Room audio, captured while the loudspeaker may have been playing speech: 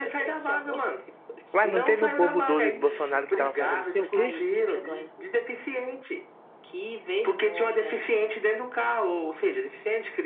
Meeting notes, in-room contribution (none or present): present